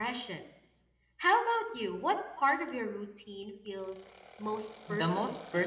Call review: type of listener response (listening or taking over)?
taking over